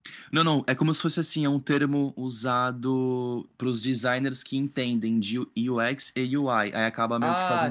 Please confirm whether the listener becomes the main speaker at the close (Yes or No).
Yes